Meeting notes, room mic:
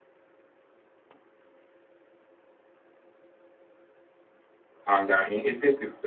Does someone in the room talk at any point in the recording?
Yes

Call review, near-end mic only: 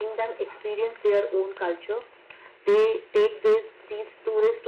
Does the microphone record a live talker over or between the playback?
No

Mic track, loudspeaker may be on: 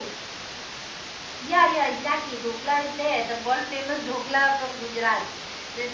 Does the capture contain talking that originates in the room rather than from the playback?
No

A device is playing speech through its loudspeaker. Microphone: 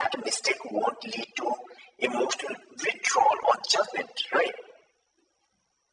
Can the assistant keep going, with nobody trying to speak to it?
Yes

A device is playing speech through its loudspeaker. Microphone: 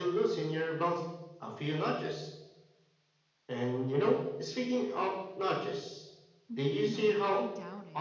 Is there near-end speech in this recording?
Yes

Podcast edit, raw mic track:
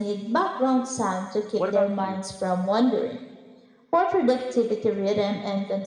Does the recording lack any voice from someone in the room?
No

